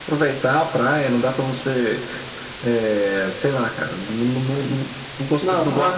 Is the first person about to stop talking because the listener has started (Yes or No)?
No